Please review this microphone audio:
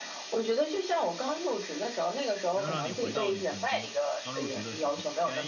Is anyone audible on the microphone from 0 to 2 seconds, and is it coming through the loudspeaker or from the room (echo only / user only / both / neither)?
echo only